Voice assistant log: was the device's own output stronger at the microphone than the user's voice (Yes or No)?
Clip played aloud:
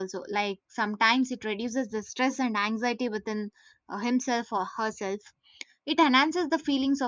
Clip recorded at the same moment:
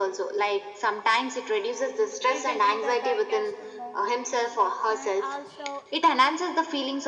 Yes